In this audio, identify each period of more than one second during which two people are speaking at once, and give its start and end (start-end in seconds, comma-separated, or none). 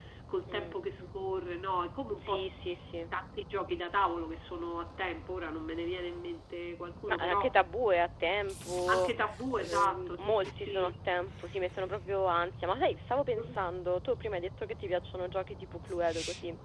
9.6-10.9